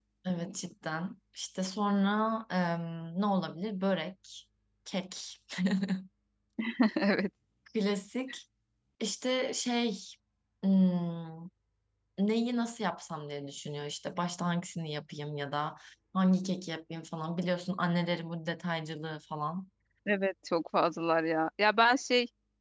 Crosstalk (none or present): none